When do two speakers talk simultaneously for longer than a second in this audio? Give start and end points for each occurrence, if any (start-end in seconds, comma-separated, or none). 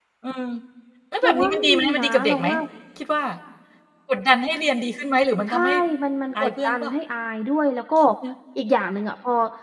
1.2-2.5